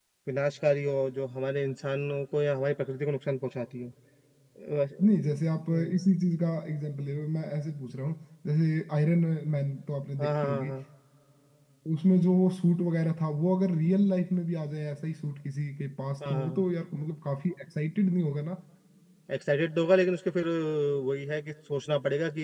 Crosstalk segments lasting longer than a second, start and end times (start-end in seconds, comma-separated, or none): none